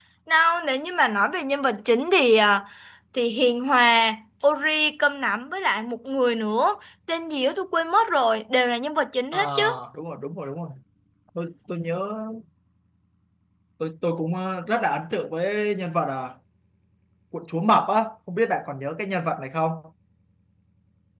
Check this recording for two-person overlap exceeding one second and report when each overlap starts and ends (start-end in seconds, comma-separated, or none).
none